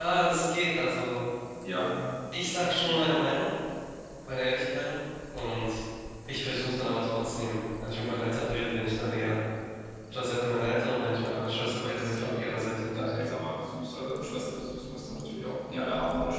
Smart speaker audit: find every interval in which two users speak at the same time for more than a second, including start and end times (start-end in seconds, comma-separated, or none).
11.3-13.3